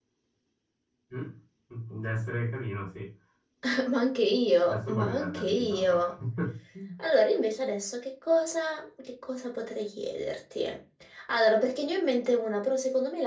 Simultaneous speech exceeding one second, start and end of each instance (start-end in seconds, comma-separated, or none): 4.6-6.1